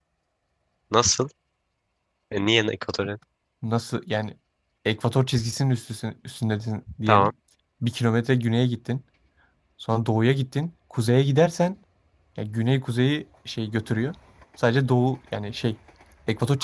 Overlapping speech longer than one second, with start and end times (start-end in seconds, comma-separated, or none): none